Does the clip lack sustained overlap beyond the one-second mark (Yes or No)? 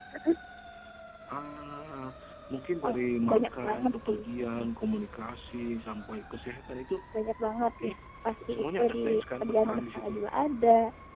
No